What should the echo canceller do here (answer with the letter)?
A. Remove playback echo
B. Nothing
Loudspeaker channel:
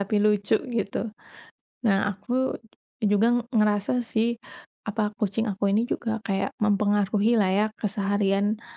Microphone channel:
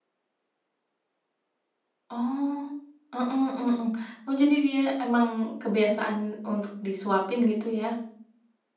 B